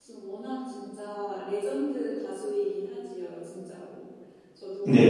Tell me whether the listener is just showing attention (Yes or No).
No